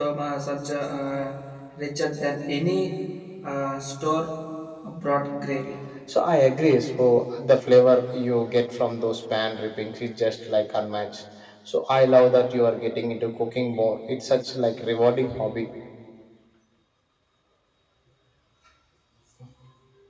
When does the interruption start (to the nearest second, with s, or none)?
none